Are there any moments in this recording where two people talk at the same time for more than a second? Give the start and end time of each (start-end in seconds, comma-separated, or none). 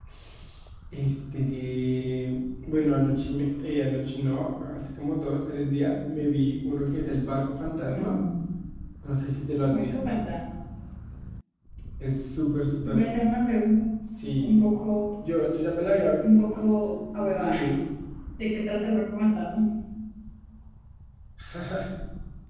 none